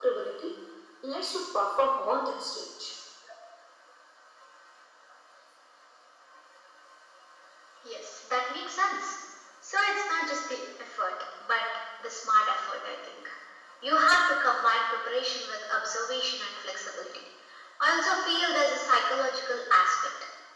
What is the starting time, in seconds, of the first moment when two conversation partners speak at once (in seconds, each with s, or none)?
none